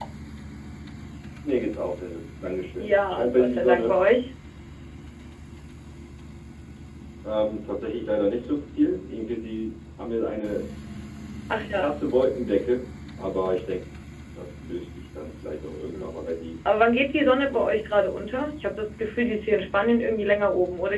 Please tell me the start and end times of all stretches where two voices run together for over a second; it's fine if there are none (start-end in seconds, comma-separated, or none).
2.8-4.0